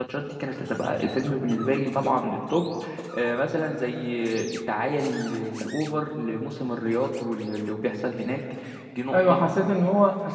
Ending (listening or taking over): taking over